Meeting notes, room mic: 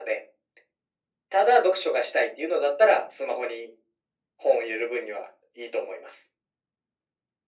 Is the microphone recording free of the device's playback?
No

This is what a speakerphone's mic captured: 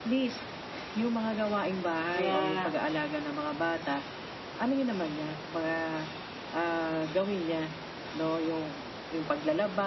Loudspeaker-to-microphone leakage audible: Yes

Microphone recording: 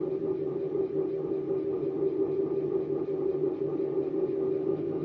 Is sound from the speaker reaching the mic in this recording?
No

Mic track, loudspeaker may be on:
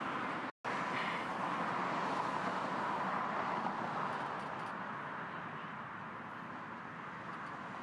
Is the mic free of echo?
Yes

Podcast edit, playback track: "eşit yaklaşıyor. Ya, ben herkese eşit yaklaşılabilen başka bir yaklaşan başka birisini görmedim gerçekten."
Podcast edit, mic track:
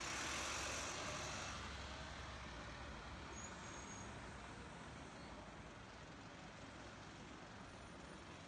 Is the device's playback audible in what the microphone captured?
No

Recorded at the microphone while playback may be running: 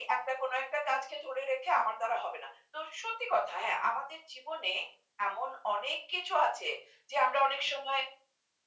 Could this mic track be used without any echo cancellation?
No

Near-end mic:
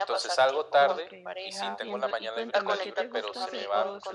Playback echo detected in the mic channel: Yes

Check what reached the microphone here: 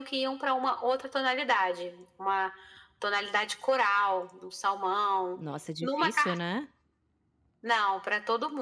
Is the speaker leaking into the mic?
Yes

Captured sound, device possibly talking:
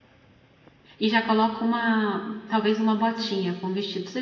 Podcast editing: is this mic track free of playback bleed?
Yes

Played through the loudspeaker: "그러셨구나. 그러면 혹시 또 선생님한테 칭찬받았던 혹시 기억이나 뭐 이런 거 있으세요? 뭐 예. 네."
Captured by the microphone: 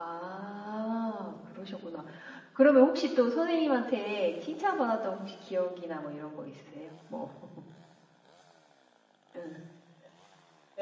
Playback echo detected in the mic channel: Yes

